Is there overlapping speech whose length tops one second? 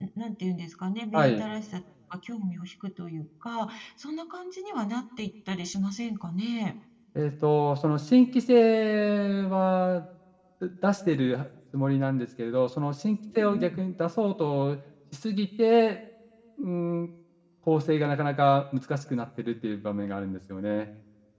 No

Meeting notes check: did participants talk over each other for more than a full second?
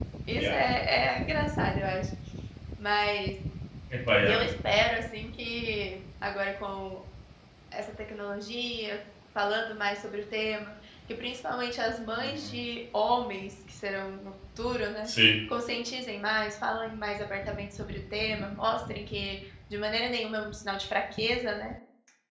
No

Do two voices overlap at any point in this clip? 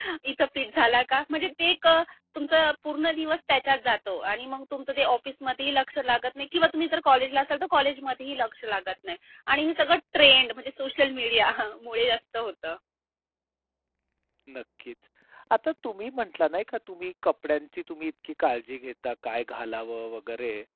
No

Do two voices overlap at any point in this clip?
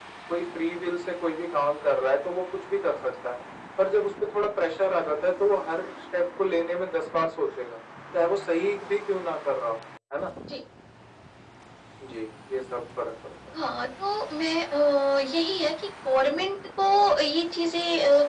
No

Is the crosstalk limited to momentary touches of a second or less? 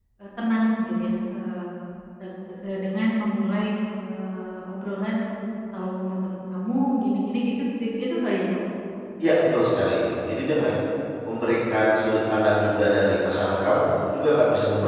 Yes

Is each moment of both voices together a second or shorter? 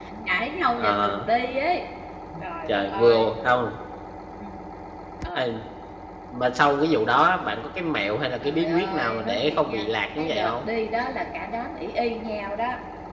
No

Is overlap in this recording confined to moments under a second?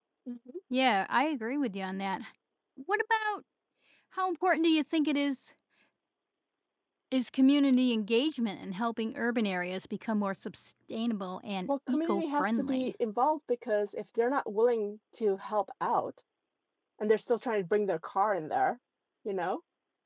No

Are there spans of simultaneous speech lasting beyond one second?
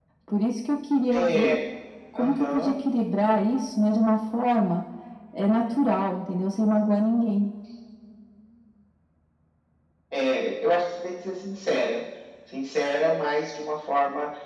No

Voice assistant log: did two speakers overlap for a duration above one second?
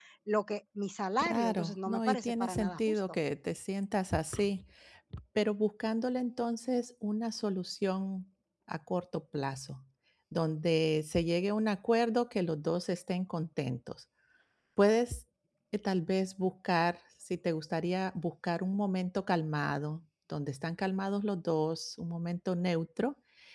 Yes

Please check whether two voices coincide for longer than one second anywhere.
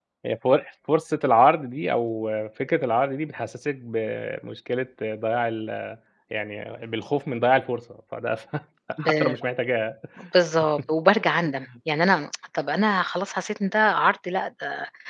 No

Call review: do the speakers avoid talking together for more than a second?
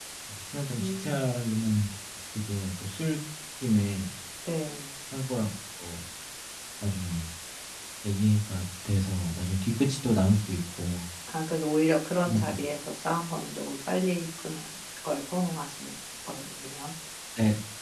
Yes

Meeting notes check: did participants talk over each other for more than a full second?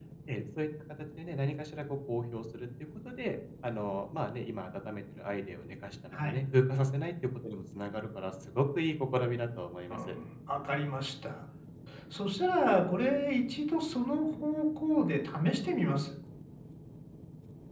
No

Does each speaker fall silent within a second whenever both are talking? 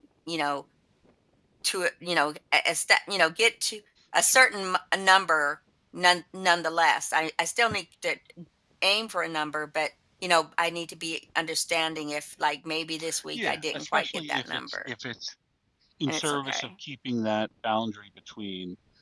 No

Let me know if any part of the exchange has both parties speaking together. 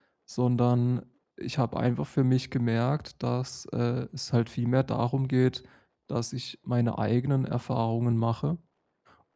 No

